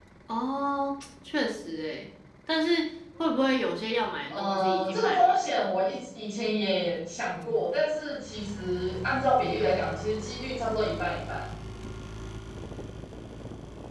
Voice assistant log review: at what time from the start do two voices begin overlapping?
4.3 s

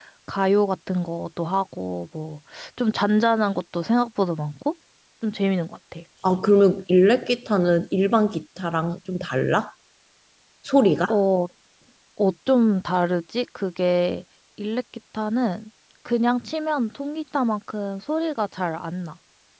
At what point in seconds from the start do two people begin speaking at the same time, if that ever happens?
none

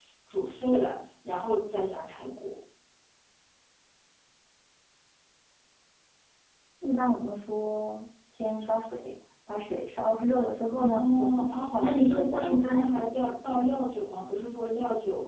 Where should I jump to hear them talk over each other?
10.8 s

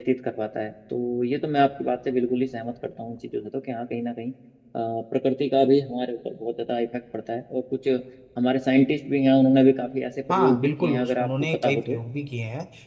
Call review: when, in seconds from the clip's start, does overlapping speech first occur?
10.3 s

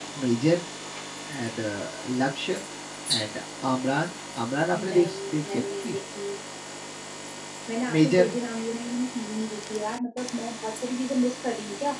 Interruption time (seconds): 4.8 s

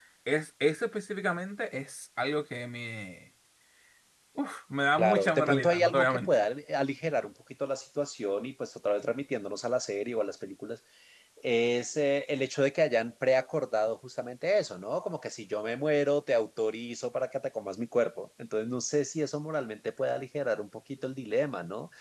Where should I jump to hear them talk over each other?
5.0 s

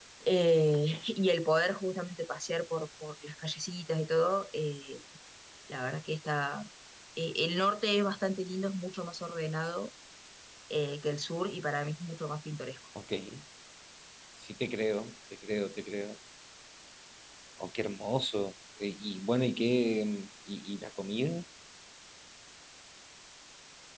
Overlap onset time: none

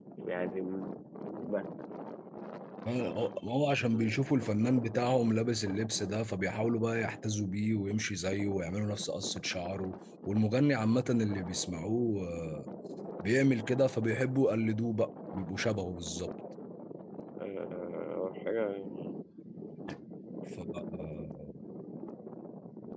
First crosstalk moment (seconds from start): none

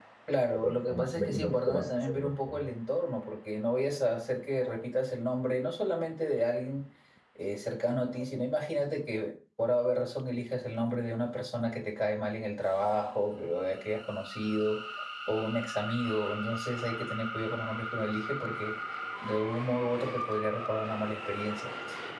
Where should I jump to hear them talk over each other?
0.5 s

